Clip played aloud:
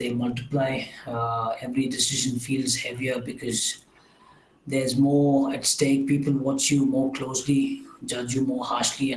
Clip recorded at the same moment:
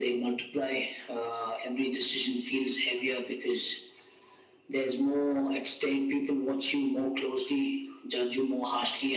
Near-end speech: none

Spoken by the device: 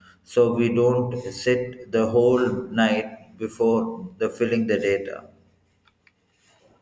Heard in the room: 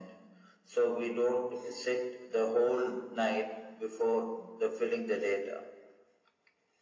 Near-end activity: none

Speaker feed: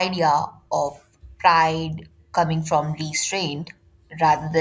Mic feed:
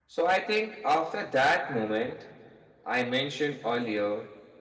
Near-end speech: present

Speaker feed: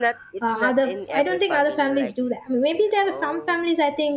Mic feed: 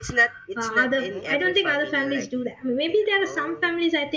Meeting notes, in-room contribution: present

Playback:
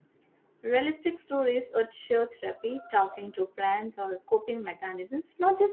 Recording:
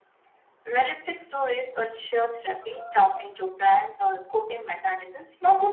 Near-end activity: none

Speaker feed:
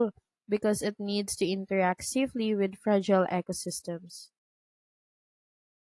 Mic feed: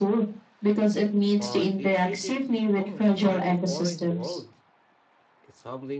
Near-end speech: present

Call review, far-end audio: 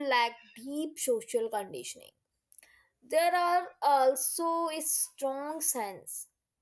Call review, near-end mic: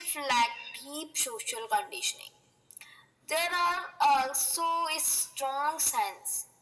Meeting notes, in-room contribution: none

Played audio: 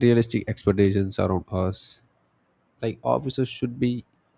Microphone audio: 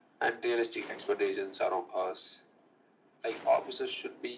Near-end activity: none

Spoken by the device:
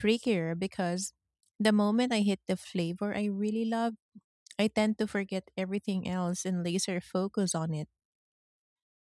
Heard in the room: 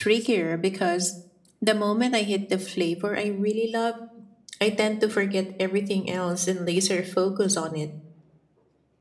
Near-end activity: none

